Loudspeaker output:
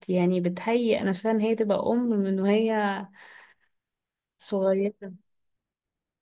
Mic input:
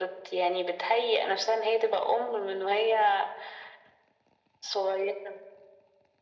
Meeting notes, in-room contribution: none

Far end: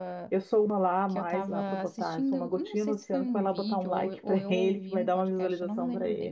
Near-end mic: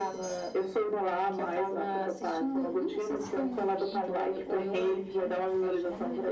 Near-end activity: none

